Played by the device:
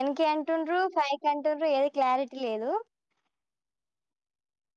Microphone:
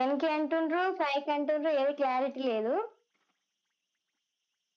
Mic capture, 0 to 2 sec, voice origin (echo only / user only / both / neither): echo only